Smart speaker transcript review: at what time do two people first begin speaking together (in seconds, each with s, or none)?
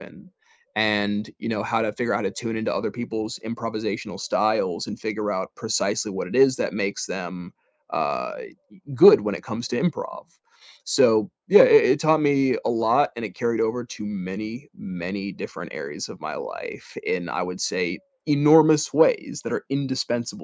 none